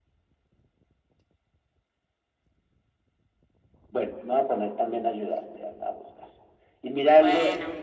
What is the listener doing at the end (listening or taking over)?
listening